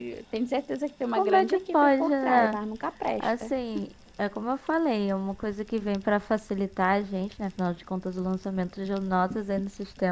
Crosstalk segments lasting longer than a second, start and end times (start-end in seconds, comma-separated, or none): 1.1-2.6